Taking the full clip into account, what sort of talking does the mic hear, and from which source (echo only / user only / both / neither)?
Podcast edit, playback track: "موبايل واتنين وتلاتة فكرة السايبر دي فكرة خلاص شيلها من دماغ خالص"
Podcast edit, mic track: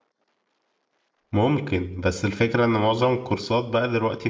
user only